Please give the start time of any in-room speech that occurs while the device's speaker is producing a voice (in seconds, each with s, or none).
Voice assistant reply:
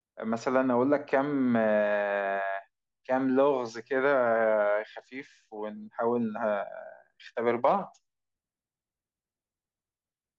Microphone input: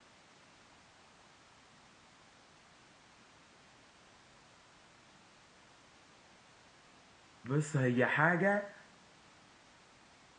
7.4 s